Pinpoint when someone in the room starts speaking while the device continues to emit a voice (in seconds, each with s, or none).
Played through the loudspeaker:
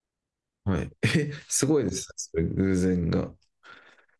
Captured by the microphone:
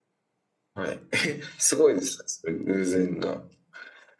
none